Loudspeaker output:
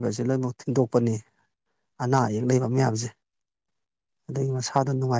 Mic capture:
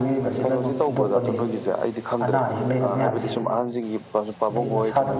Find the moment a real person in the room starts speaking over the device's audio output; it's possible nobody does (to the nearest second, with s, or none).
0 s